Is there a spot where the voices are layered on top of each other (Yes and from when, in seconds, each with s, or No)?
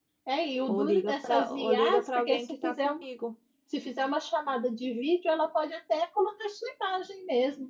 Yes, from 0.7 s